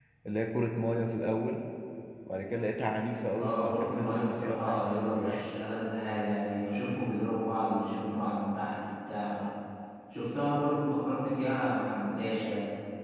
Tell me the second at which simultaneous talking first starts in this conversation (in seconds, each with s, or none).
3.3 s